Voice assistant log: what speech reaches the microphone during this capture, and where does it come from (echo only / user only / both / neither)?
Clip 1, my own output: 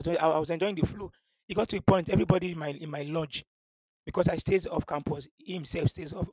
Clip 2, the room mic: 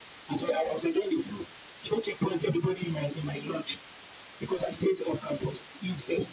echo only